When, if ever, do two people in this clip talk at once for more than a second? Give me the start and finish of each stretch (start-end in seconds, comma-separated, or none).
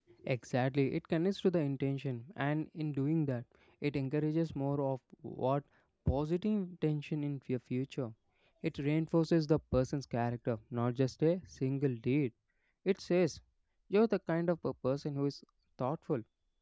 none